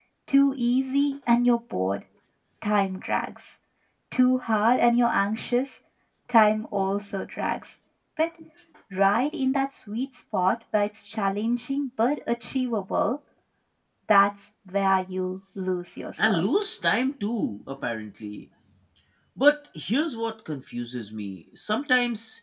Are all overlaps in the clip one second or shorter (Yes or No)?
Yes